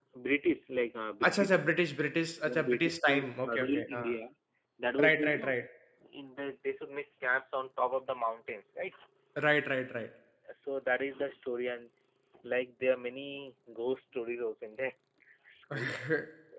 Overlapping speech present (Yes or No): Yes